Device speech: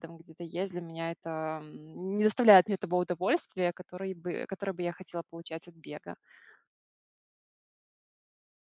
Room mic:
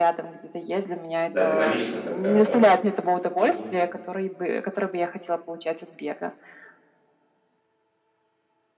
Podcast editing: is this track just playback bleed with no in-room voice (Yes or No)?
No